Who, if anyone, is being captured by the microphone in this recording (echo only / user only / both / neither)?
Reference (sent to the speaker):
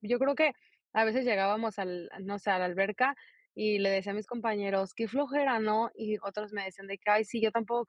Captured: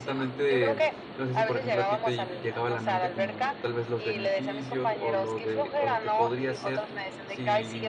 both